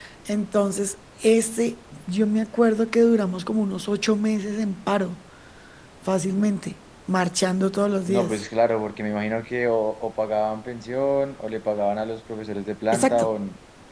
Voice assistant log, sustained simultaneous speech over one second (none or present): none